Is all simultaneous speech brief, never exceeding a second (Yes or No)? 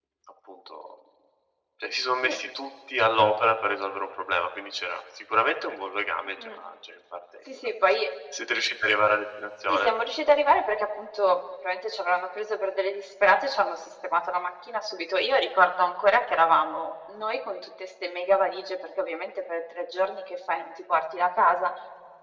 Yes